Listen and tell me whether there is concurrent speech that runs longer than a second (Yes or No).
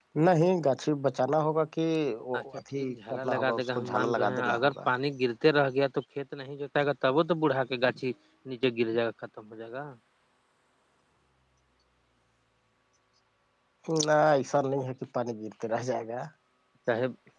Yes